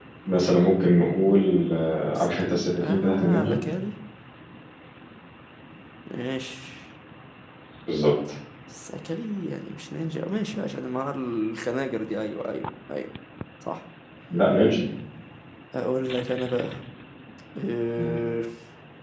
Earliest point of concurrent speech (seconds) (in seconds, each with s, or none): 2.1 s